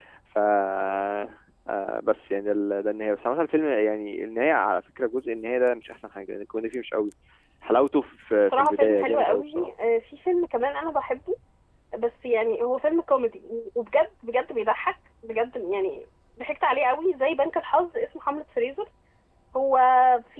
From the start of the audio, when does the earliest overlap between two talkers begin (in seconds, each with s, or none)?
8.3 s